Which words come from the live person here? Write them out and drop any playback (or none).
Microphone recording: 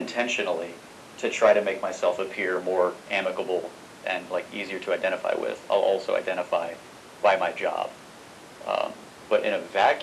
none